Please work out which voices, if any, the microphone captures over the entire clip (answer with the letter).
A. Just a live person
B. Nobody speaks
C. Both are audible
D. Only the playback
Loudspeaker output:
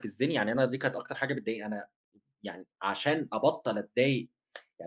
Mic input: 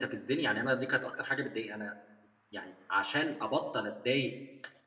D